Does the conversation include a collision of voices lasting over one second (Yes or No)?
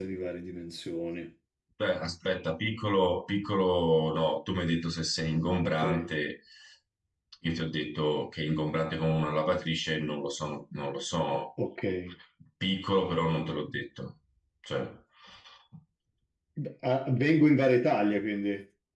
No